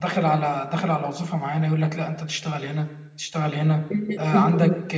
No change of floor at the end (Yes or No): Yes